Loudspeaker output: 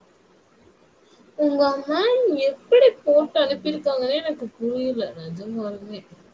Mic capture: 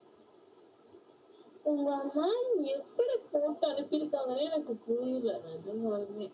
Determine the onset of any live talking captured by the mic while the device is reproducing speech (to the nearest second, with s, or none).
none